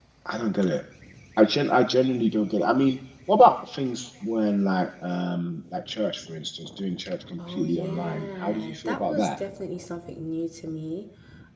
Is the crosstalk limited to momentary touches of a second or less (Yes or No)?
No